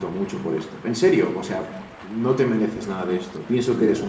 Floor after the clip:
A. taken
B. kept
A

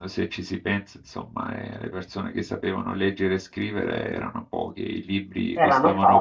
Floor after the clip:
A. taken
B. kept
B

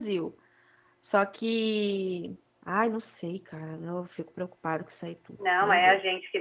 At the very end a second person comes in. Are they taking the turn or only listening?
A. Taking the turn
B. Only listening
A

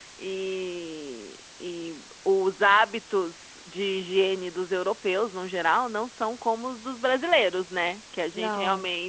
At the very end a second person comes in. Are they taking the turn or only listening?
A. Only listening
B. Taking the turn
A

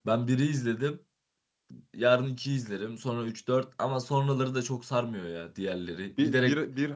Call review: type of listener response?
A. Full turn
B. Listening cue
A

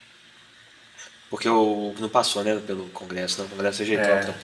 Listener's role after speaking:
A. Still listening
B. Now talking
B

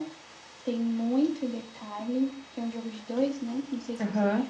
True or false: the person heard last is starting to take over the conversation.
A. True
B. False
A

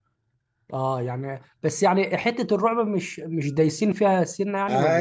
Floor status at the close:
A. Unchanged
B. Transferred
B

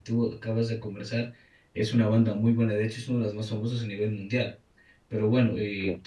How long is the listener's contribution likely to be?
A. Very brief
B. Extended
A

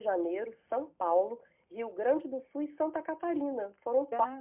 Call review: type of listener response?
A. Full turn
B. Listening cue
A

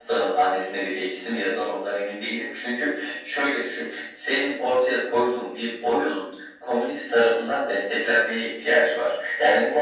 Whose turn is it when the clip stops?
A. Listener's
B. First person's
B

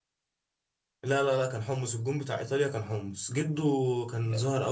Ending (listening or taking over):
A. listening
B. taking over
A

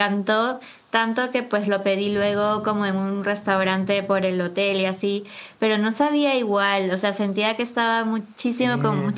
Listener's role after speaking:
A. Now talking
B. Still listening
B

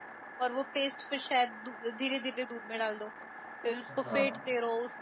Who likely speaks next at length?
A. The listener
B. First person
B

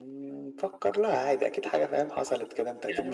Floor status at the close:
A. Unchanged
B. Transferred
B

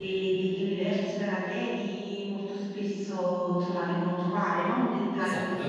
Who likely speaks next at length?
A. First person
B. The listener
B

